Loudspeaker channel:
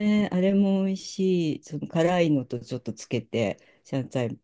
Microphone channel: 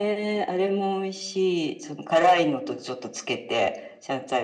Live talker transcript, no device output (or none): none